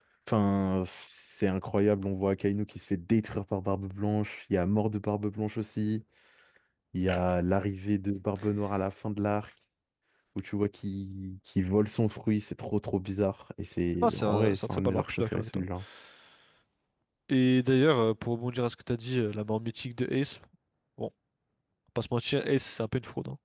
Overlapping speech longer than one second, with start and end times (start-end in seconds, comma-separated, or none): 14.0-15.6